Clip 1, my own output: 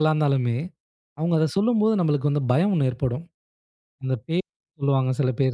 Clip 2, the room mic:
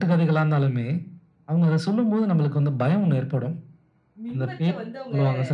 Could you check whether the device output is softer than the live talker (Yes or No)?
No